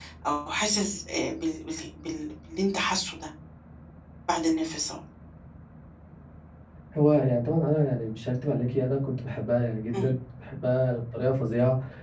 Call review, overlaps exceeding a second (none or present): none